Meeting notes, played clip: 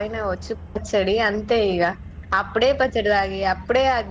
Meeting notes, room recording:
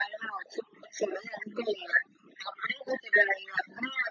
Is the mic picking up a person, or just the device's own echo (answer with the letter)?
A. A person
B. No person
B